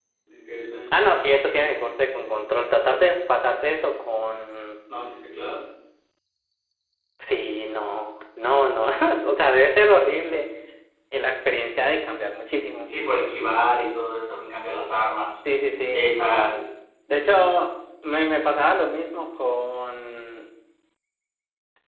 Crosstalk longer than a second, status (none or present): none